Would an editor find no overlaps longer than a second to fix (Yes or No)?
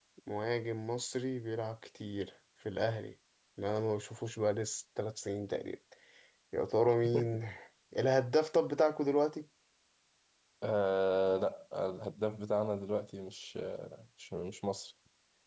Yes